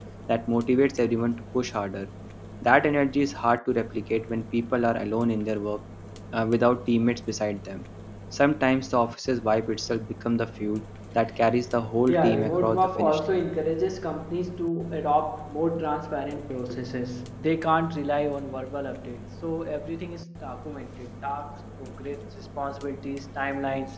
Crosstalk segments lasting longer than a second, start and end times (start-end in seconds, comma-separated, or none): 12.1-13.4